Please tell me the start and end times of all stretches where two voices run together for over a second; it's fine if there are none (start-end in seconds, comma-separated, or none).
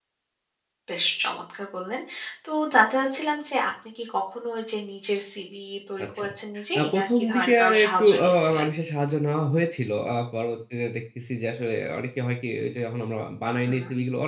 6.8-8.7